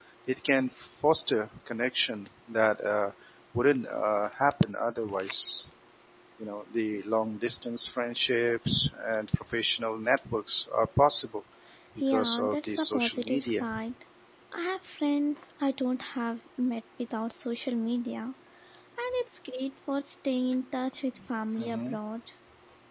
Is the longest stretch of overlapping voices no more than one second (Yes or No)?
No